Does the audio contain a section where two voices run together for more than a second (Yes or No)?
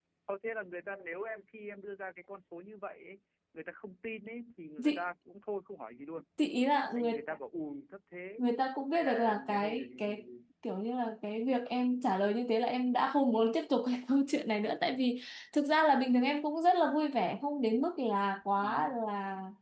Yes